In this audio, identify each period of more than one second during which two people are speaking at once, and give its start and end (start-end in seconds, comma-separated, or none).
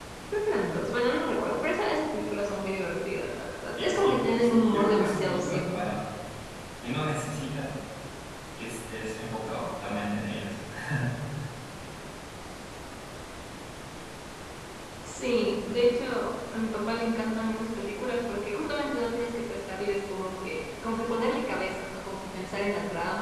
3.8-5.6